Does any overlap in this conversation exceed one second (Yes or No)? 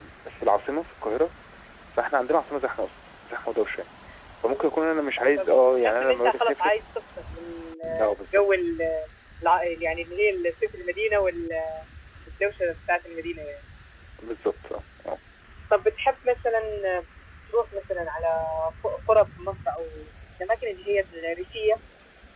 Yes